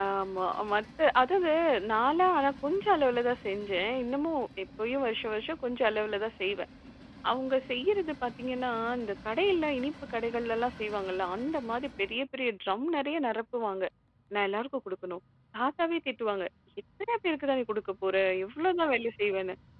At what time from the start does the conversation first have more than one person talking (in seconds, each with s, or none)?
none